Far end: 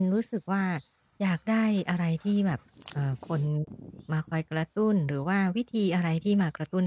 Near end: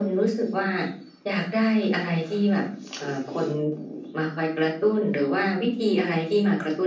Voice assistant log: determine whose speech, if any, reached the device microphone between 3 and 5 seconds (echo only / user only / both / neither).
echo only